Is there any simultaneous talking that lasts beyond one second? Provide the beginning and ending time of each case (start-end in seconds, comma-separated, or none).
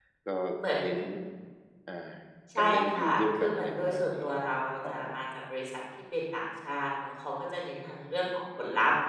2.6-4.2